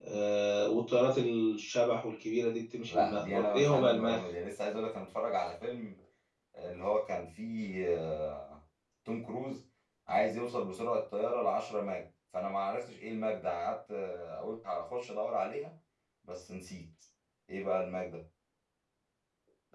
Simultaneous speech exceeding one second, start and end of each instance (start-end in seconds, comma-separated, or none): 2.9-4.2